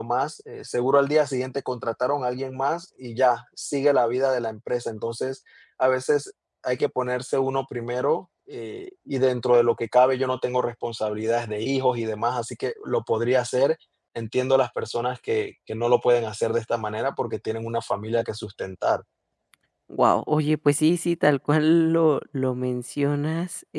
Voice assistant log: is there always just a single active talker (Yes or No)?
Yes